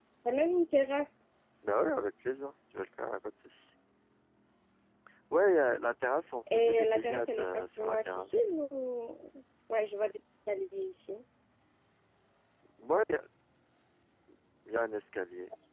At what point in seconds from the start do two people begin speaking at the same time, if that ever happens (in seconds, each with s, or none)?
6.5 s